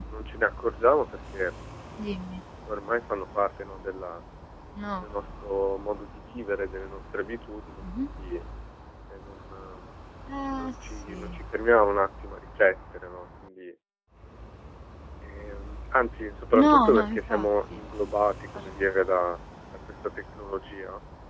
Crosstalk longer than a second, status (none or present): present